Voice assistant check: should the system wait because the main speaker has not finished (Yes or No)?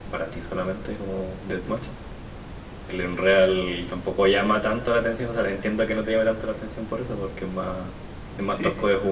No